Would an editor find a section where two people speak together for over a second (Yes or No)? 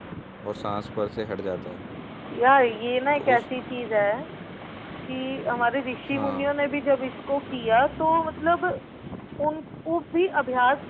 No